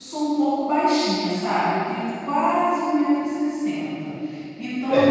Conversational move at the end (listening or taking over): taking over